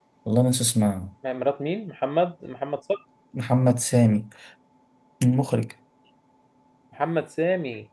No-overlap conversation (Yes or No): Yes